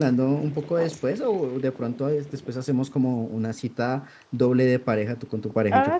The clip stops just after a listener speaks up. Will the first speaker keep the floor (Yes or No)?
No